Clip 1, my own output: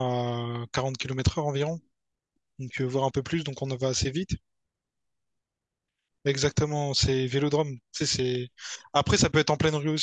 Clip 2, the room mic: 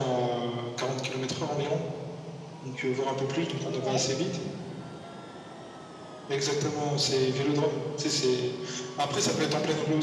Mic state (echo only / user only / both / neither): both